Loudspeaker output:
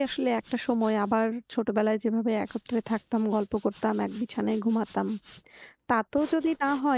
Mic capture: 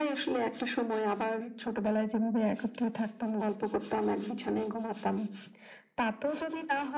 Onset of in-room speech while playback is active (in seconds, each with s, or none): none